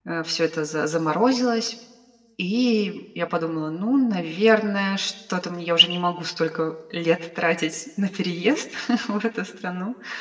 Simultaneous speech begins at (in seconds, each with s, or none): none